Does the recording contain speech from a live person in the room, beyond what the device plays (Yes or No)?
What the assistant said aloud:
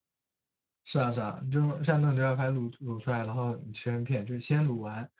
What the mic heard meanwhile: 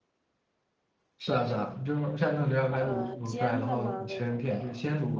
Yes